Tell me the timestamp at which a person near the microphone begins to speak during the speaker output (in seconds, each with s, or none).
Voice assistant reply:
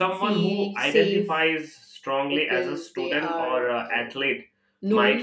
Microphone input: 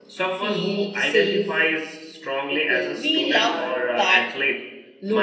2.9 s